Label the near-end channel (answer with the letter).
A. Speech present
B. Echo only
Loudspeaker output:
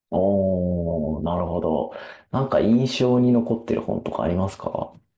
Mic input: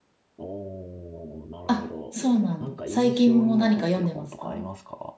A